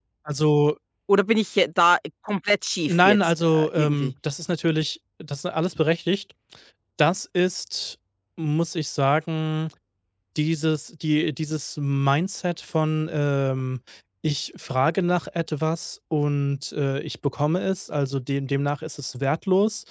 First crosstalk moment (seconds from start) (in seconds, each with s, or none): 2.9 s